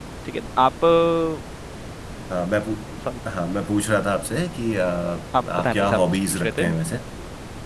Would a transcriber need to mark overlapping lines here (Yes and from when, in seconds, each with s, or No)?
Yes, from 5.3 s